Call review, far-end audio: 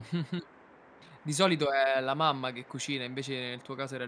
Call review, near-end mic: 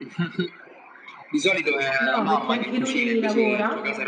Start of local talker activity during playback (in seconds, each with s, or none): 2.0 s